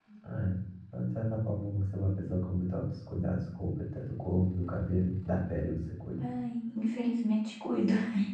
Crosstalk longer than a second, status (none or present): none